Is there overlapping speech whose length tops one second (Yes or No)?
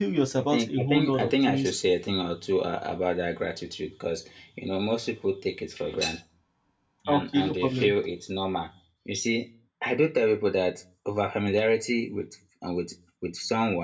Yes